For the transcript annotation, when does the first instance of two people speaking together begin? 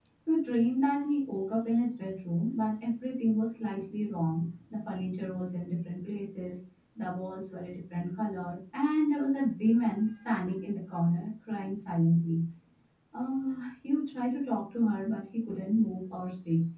none

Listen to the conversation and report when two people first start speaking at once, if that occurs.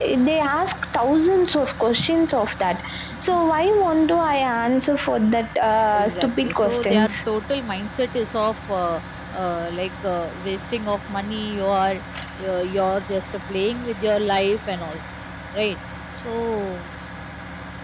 5.9 s

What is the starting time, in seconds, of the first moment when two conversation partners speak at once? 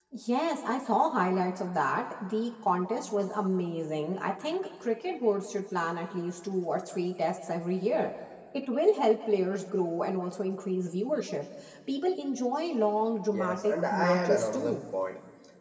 13.3 s

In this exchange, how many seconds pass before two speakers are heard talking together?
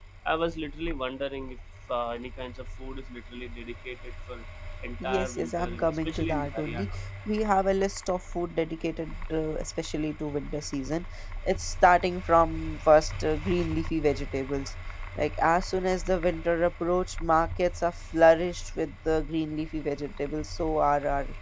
5.0 s

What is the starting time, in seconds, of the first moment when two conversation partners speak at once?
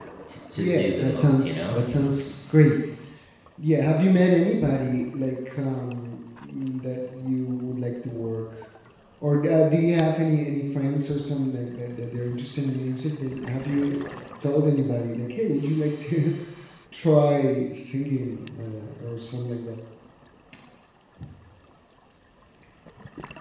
0.6 s

